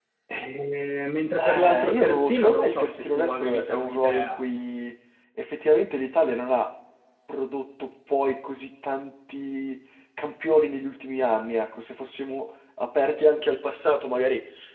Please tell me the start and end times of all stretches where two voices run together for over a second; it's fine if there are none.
1.4-4.4

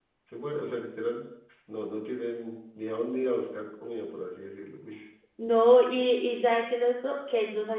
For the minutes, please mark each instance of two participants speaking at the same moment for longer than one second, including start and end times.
none

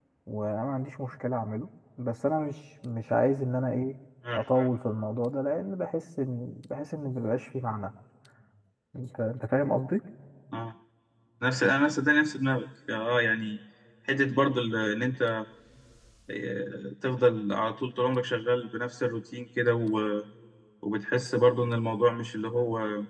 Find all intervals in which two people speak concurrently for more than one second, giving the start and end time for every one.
none

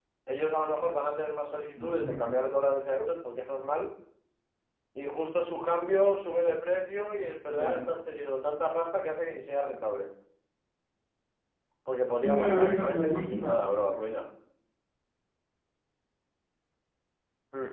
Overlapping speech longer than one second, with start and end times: 12.2-13.6

